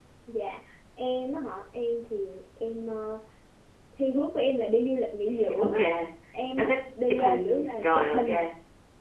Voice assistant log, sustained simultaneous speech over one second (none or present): present